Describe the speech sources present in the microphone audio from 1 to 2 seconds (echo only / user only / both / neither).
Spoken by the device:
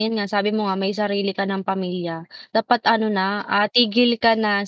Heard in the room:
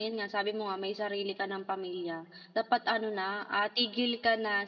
echo only